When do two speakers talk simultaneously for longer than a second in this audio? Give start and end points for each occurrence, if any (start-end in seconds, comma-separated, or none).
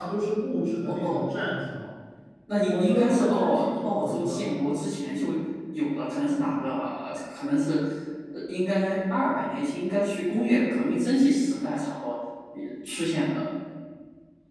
2.6-4.4